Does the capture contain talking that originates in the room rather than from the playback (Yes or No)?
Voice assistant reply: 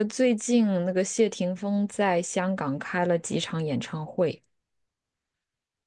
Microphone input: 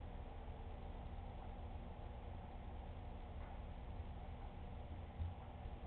No